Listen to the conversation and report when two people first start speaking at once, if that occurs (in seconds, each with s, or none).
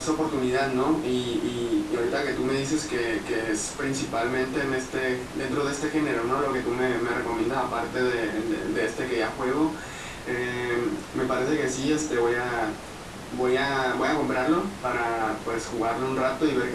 none